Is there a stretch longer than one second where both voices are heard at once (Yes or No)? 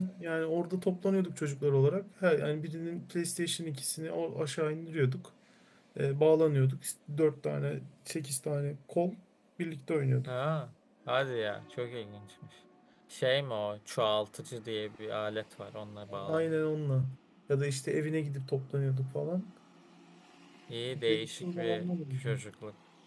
Yes